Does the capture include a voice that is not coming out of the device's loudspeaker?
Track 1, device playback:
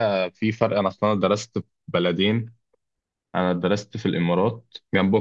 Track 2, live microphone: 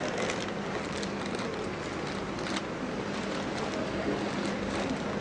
No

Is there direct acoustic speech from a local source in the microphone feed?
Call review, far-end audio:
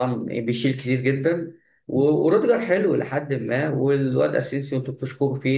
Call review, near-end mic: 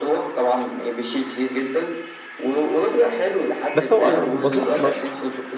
Yes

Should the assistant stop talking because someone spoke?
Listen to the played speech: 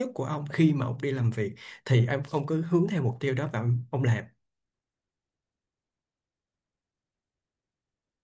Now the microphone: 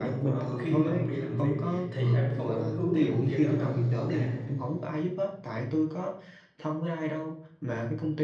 Yes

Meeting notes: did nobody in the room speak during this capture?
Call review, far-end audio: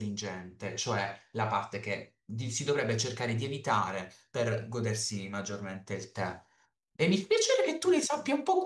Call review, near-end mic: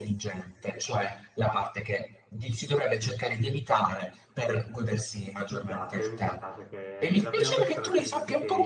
No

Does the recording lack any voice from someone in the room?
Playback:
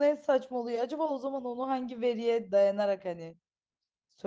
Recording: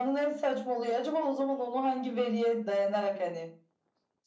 Yes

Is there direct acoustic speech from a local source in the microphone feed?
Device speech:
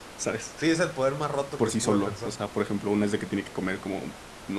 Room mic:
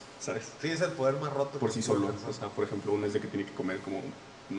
No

